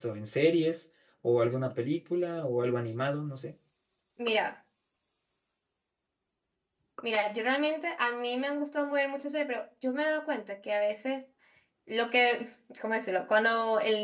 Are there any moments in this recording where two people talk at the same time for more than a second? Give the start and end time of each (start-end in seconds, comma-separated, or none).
none